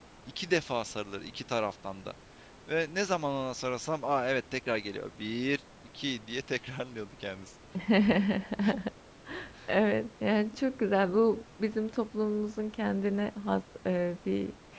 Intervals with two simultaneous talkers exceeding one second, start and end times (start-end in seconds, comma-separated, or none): none